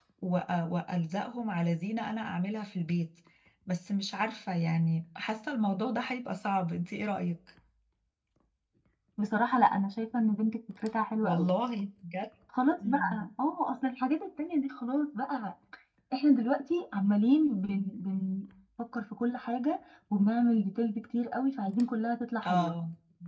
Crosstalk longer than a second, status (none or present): none